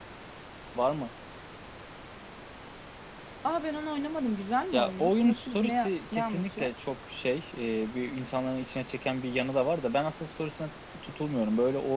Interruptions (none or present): present